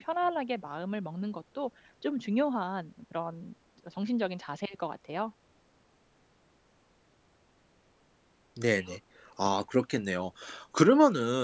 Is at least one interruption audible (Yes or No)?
No